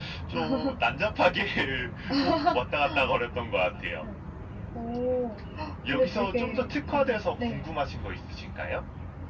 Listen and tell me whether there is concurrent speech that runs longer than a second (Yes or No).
Yes